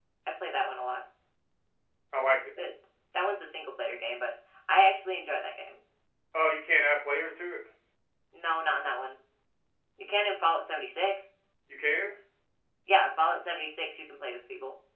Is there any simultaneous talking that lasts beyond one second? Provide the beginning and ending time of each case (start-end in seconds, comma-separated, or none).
none